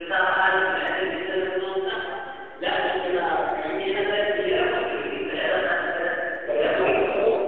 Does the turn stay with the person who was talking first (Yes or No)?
No